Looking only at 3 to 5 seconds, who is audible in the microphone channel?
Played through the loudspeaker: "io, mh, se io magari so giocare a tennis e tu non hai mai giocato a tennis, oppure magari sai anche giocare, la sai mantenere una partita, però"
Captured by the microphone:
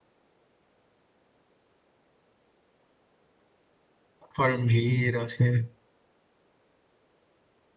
user only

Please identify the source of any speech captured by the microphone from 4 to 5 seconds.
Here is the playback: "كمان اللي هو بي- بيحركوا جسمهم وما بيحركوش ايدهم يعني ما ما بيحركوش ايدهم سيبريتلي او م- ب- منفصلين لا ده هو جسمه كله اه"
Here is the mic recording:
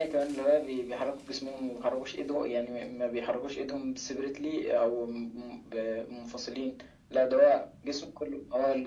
echo only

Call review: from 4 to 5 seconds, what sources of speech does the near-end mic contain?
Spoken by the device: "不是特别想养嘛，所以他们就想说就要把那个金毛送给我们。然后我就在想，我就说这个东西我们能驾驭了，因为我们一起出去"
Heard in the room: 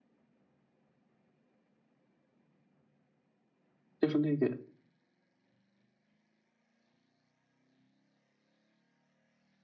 user only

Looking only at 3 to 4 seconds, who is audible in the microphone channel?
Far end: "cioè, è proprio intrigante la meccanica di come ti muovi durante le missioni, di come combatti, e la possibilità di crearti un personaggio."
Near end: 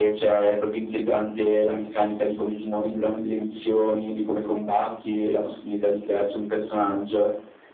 echo only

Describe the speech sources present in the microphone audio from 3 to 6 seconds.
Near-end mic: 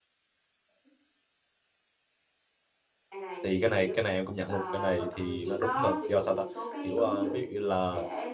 both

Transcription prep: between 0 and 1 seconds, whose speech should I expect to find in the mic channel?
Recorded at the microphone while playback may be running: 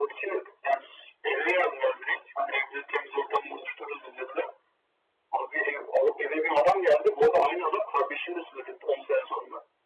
echo only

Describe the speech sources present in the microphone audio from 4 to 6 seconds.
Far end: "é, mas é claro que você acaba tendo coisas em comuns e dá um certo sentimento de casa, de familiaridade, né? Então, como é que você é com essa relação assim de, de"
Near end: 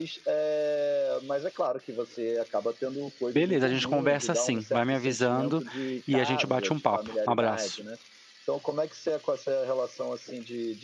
both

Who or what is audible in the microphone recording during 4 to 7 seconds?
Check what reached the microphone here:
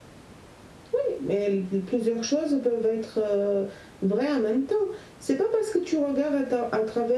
echo only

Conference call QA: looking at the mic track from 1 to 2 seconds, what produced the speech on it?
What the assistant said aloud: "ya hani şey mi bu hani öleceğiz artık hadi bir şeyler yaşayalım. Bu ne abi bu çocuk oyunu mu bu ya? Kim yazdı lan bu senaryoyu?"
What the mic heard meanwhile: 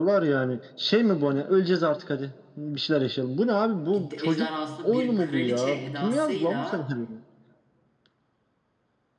echo only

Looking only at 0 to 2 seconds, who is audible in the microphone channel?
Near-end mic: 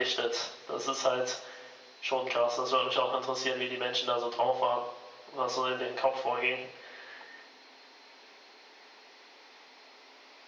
echo only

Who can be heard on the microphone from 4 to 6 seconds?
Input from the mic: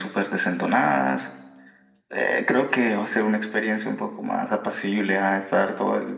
echo only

